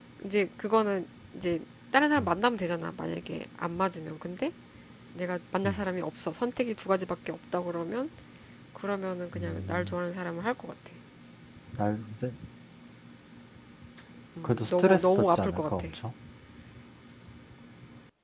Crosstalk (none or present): present